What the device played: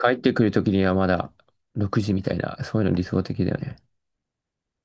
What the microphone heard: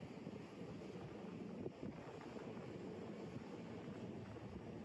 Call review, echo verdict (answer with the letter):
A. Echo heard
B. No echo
B